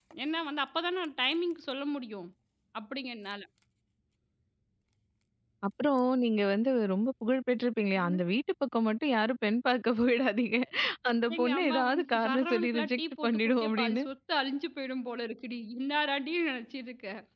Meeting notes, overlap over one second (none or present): present